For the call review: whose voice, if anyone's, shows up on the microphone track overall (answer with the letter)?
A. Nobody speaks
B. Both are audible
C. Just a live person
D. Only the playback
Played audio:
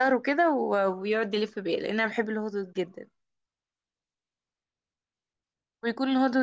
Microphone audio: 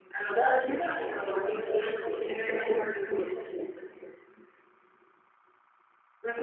B